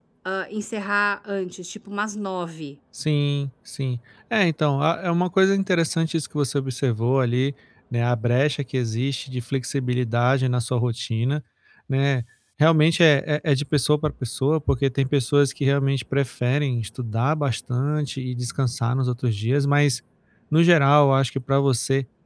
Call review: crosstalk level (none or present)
none